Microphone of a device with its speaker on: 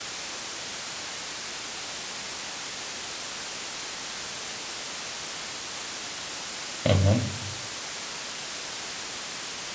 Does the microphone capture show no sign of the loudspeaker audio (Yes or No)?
Yes